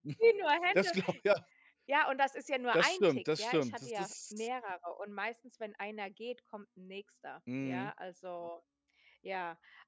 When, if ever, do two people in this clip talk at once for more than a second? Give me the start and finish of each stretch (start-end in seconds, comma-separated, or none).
2.7-4.5